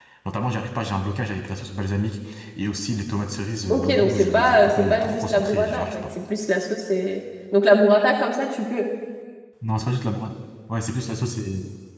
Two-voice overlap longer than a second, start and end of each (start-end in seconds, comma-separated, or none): 3.7-6.0